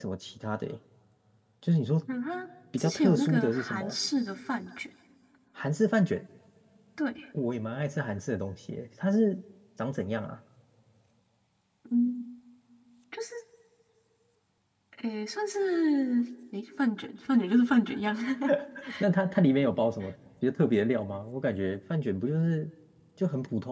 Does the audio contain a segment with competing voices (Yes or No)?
Yes